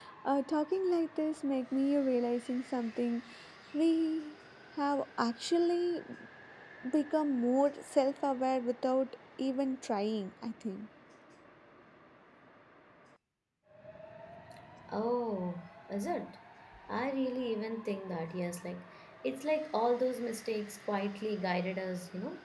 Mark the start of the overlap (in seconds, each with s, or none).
none